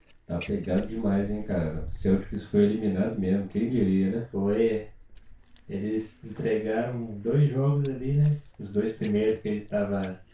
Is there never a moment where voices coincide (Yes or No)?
Yes